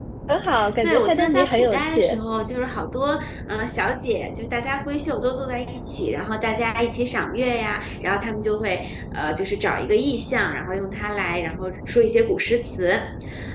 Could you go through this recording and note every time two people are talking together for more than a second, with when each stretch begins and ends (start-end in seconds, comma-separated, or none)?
0.8-2.1